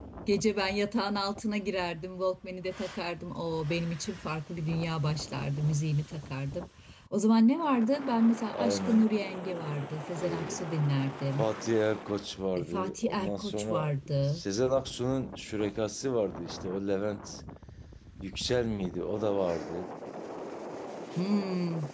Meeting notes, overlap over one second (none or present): present